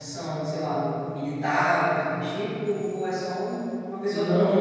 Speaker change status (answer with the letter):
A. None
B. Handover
B